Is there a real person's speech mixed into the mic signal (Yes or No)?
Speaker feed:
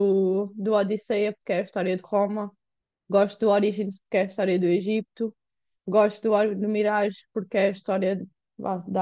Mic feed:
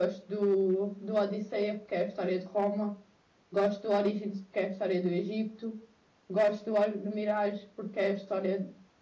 No